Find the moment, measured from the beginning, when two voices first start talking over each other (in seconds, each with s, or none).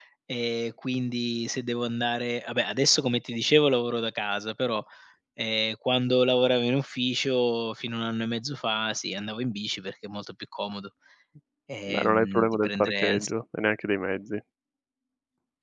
11.9 s